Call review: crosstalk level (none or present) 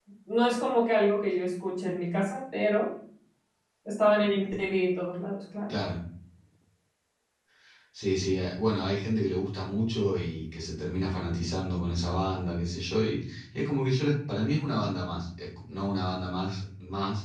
none